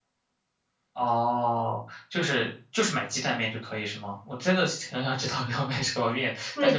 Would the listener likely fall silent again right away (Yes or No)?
No